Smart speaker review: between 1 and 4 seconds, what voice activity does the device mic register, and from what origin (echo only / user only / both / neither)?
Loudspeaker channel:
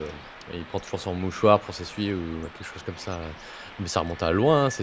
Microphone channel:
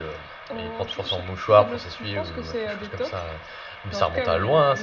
both